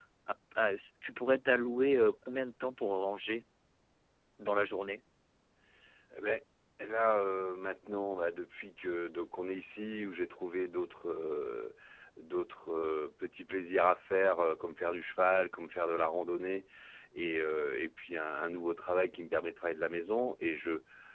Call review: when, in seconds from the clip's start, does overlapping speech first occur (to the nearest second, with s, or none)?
none